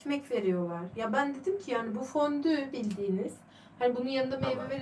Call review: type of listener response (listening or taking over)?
listening